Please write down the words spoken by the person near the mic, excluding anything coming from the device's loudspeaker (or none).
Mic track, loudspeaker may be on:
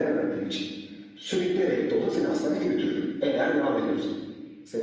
none